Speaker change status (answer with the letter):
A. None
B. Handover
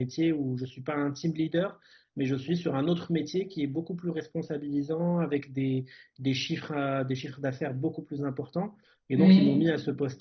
A